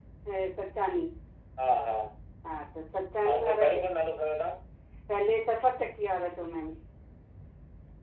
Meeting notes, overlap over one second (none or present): none